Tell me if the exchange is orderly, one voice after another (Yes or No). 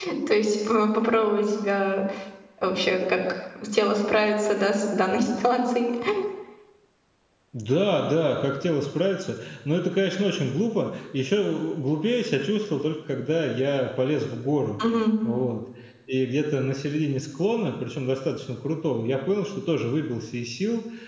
Yes